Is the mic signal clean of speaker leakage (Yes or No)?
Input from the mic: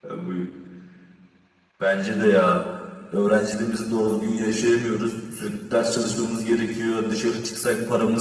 No